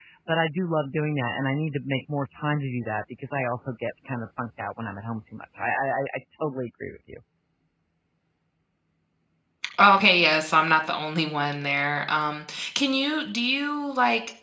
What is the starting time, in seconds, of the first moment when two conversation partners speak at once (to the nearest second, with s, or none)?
none